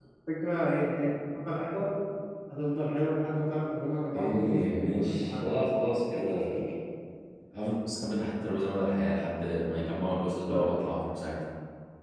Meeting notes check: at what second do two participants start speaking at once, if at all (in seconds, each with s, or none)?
4.1 s